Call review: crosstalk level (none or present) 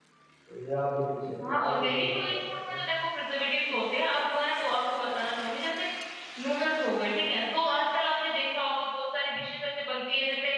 present